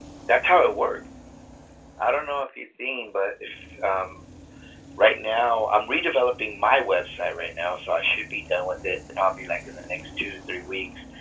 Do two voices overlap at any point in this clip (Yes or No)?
No